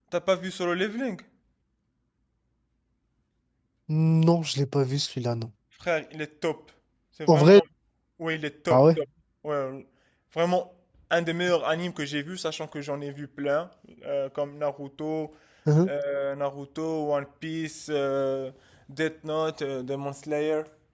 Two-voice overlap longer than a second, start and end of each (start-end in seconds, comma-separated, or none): none